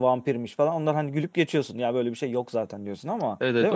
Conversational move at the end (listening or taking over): taking over